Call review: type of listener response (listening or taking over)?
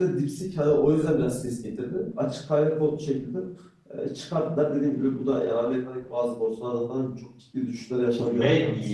taking over